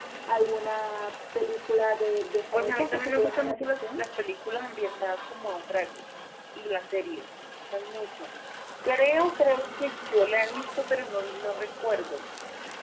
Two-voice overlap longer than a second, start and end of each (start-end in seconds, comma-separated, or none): 2.5-4.0